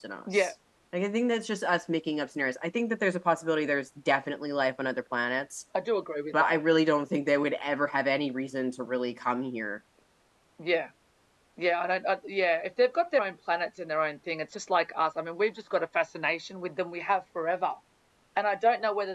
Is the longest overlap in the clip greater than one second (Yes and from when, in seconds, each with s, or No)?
No